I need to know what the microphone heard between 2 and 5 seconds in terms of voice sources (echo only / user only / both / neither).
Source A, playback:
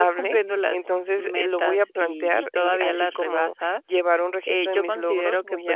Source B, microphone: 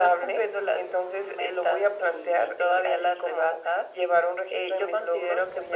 echo only